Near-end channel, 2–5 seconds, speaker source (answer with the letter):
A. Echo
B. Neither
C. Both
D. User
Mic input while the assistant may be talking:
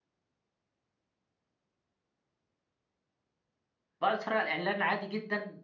D